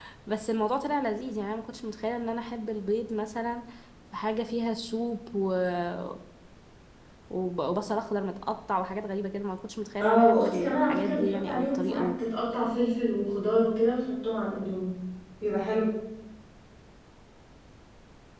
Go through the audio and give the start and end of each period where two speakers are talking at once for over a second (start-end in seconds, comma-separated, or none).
10.0-12.1